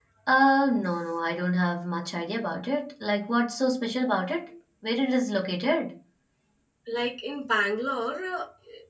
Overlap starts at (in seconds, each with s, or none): none